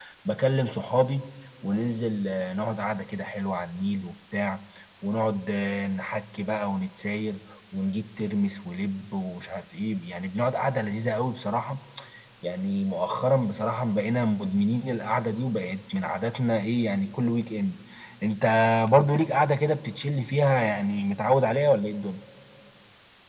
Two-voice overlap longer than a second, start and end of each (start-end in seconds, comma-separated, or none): none